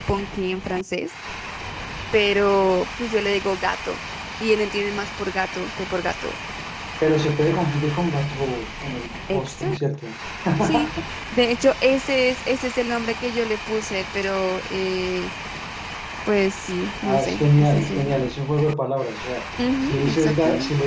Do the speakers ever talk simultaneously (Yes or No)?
Yes